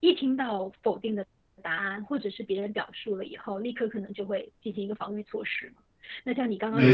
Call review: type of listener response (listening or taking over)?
taking over